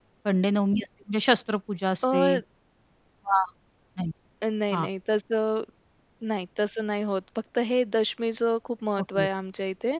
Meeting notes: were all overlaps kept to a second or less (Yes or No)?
Yes